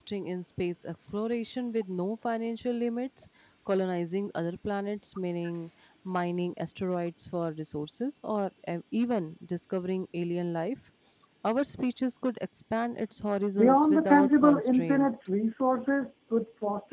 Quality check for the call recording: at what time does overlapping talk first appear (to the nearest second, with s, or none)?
14 s